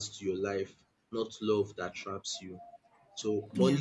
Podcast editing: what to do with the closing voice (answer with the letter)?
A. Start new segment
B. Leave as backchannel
B